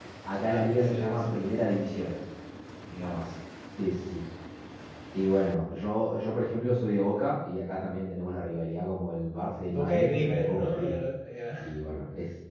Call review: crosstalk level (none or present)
present